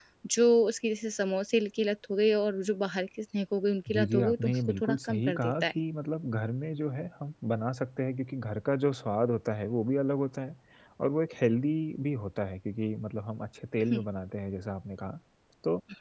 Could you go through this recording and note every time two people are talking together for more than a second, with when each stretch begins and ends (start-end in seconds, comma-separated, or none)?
3.9-5.7